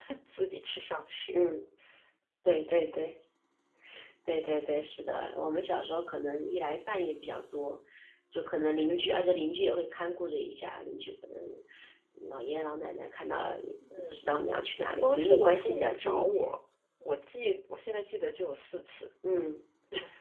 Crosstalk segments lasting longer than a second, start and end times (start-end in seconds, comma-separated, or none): 15.0-16.5